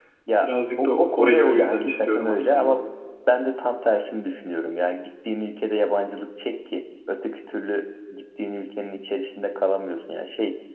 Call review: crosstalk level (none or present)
present